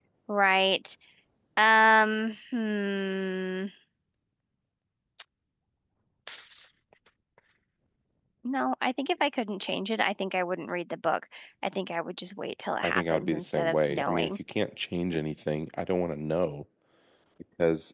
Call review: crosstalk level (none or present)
present